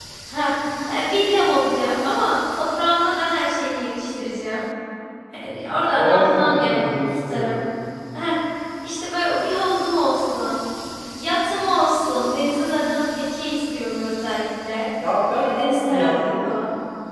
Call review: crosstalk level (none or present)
present